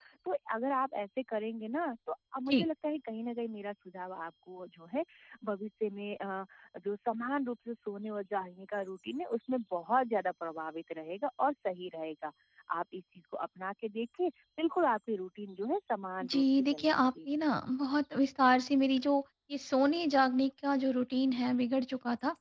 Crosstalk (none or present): present